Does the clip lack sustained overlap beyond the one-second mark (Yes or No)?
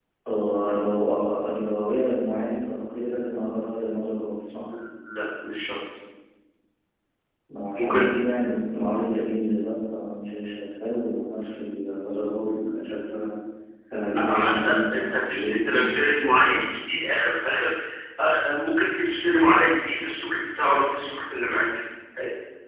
No